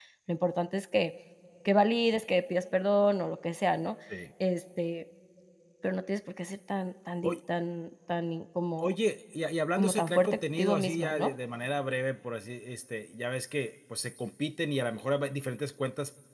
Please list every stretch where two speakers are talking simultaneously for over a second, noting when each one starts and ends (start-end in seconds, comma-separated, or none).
9.8-11.3